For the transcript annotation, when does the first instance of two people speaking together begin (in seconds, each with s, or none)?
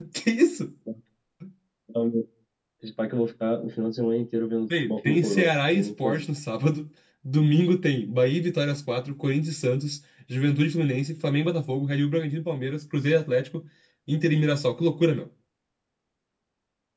4.7 s